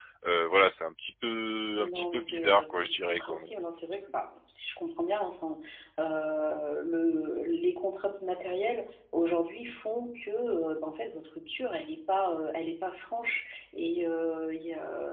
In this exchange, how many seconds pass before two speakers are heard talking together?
2 s

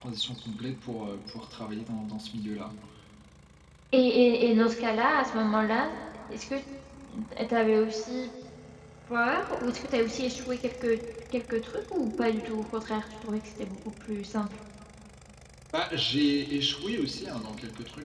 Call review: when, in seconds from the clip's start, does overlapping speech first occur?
none

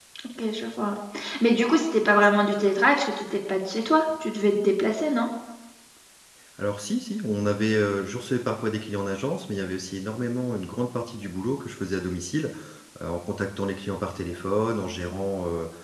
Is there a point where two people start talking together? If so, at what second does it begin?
none

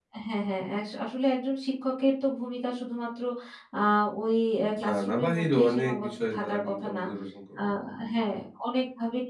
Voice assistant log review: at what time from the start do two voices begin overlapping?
5 s

